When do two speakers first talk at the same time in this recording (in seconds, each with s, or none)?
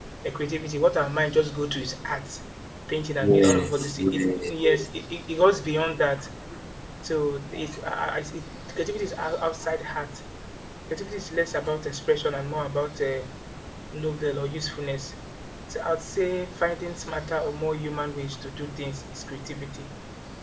3.2 s